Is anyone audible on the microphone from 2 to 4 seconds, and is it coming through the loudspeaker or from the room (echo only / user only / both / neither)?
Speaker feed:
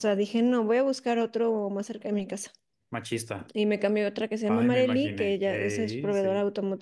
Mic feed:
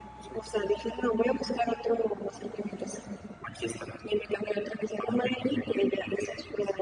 echo only